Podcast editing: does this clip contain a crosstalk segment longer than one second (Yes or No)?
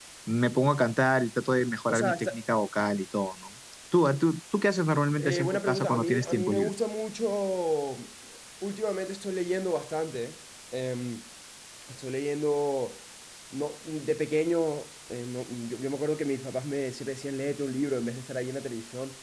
Yes